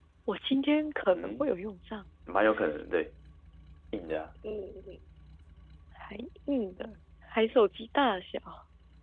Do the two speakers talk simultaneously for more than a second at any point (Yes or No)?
No